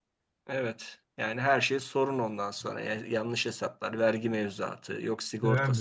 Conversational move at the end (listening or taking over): taking over